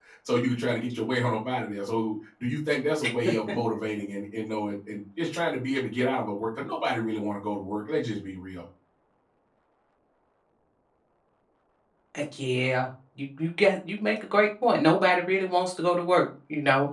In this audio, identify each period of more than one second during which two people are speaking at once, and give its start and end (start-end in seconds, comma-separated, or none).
none